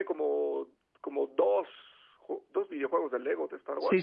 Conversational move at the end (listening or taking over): taking over